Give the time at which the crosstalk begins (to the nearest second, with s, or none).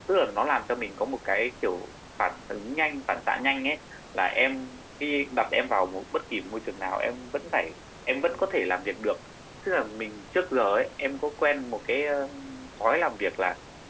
none